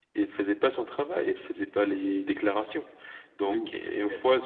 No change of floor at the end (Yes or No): Yes